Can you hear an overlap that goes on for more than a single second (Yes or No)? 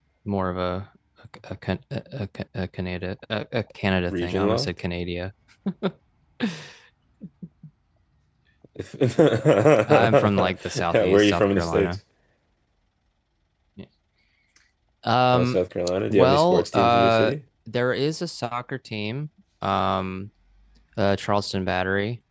Yes